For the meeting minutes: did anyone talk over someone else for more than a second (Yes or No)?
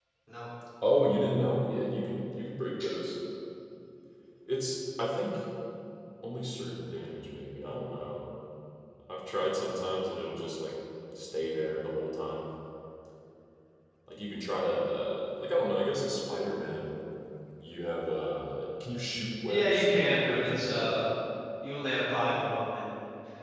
Yes